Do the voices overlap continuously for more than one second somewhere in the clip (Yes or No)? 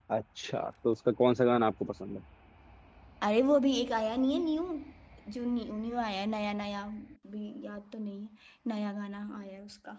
No